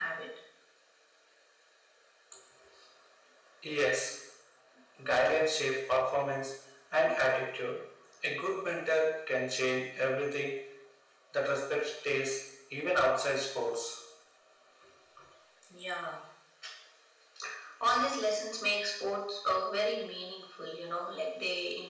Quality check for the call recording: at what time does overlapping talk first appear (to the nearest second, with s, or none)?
none